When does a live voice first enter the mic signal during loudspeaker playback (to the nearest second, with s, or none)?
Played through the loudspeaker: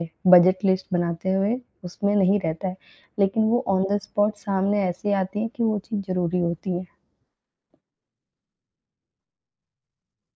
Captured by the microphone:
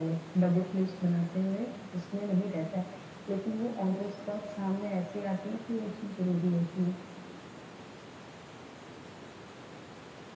none